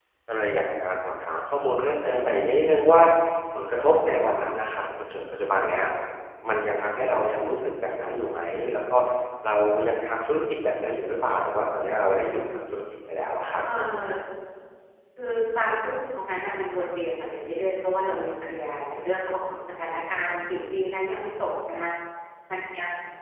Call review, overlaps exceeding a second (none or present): none